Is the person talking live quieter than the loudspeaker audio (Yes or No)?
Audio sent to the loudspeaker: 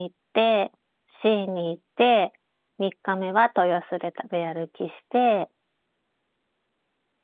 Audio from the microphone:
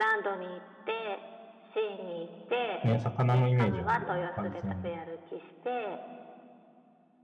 No